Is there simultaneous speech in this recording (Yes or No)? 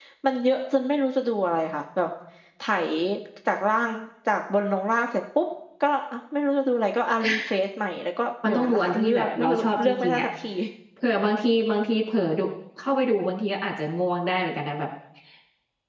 Yes